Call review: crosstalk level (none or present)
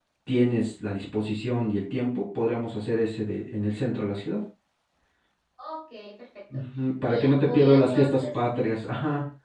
present